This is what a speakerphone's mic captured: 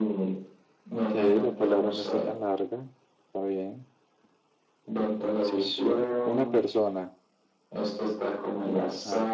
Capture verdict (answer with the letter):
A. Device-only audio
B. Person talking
B